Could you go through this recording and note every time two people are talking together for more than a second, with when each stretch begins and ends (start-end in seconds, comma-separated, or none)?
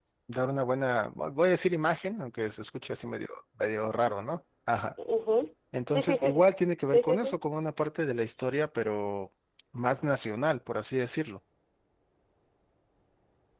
none